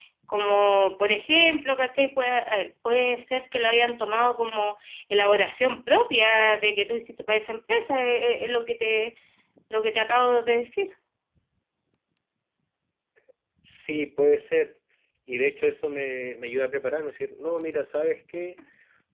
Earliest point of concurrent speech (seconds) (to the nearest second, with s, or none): none